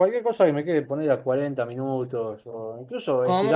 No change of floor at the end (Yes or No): Yes